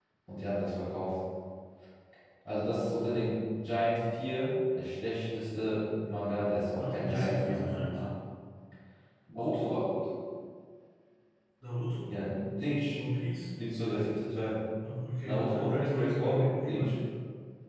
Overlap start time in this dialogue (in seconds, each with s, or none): 6.8 s